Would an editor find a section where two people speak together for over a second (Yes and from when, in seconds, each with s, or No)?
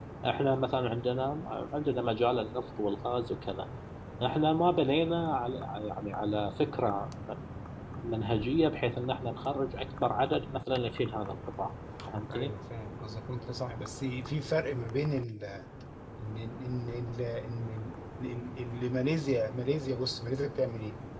No